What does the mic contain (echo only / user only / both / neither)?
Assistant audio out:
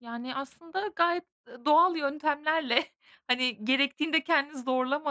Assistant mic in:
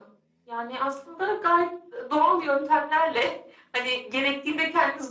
echo only